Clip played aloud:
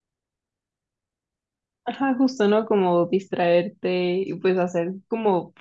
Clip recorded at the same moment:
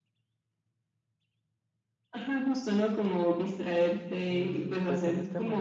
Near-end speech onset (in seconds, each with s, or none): 4.3 s